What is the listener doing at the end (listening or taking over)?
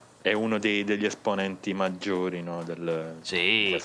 taking over